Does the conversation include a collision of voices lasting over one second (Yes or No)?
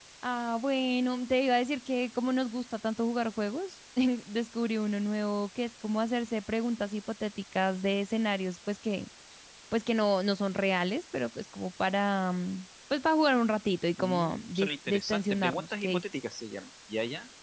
Yes